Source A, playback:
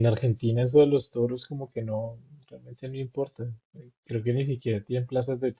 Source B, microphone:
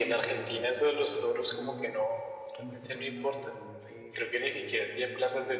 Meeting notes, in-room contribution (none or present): present